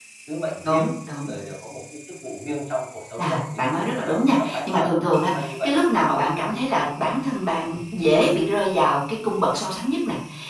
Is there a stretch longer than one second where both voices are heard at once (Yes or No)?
Yes